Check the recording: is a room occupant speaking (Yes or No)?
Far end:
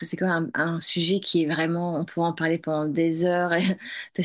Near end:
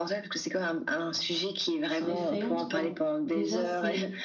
Yes